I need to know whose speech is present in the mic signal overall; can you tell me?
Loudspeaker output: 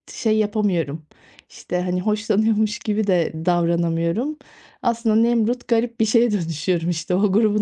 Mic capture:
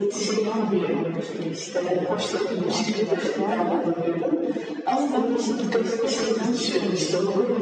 both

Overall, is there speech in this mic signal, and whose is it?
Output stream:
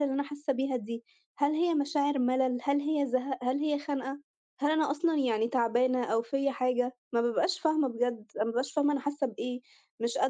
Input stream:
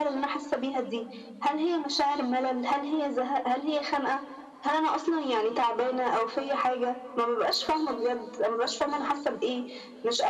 echo only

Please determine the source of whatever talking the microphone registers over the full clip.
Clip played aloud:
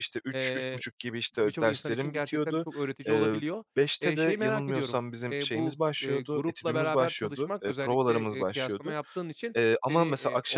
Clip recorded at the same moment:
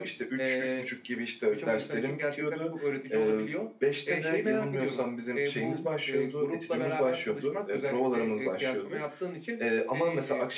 both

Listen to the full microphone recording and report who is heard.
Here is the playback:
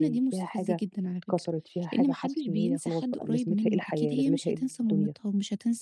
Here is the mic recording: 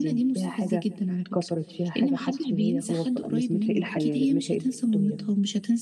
echo only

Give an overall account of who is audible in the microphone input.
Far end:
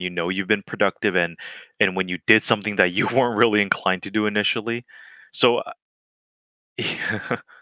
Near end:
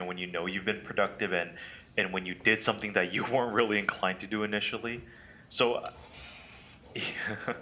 echo only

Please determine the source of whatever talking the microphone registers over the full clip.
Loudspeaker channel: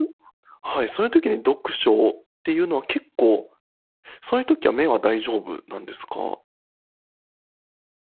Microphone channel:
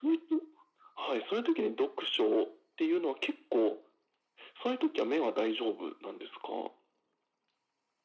echo only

